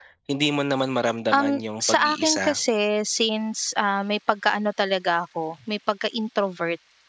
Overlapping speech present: Yes, from 1.3 s

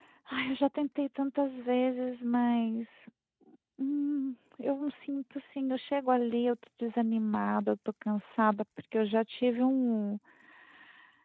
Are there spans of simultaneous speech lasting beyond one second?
No

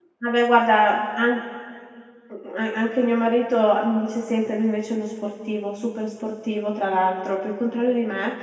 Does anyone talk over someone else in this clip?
No

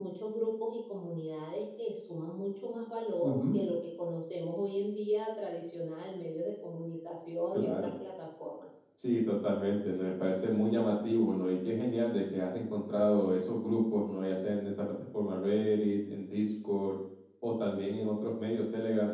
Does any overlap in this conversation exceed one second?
No

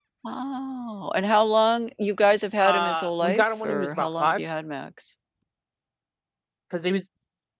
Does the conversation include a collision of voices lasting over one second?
Yes, from 2.6 s

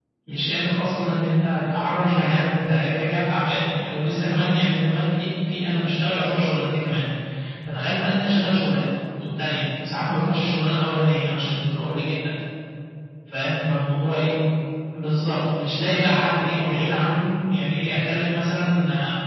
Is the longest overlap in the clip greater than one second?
Yes, from 16.1 s

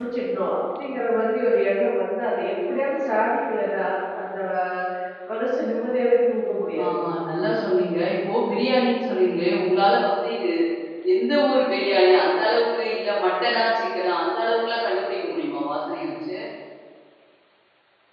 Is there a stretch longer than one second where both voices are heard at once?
No

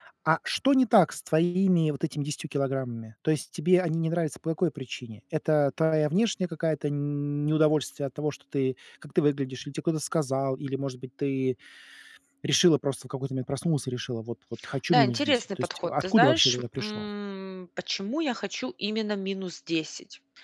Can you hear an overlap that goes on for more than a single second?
Yes, from 14.9 s

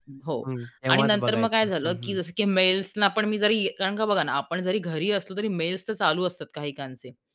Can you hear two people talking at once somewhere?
Yes, from 0.9 s

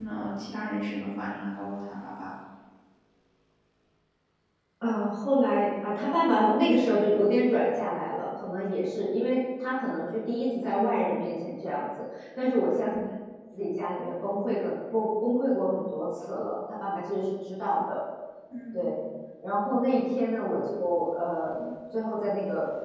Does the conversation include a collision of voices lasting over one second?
No

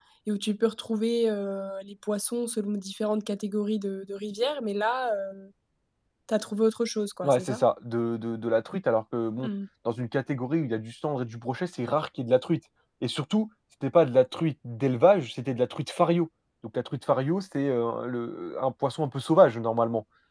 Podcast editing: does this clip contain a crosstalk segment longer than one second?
No

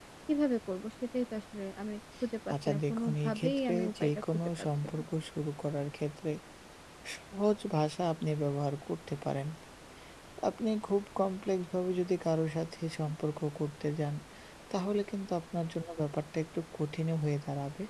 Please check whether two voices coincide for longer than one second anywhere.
Yes, from 2.5 s

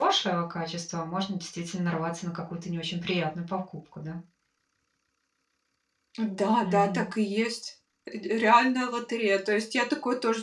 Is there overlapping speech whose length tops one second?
No

